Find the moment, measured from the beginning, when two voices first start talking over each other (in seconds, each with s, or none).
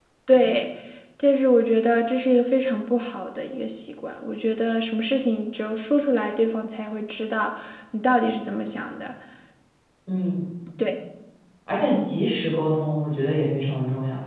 none